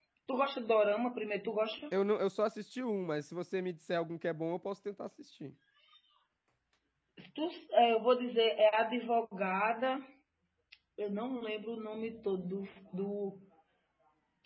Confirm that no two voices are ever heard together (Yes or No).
Yes